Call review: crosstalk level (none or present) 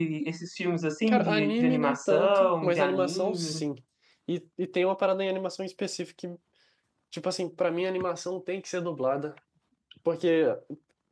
present